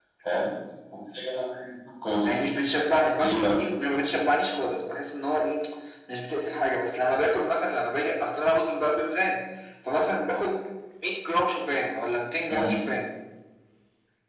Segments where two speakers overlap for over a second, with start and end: none

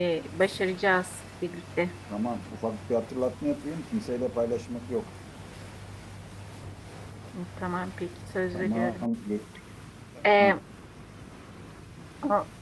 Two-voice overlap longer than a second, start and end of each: none

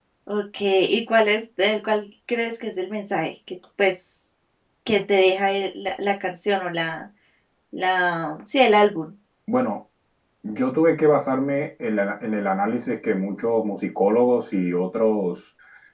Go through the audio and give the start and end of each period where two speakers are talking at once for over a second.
none

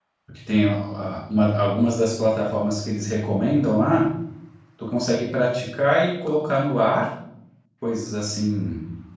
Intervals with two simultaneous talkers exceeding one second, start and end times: none

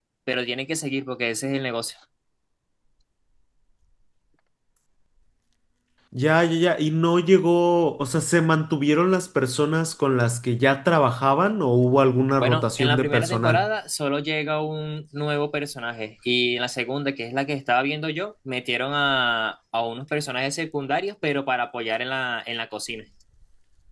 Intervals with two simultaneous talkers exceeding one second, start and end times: 12.4-13.7

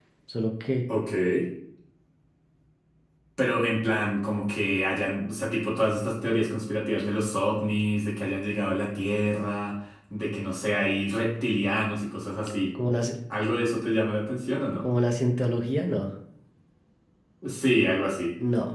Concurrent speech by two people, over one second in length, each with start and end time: none

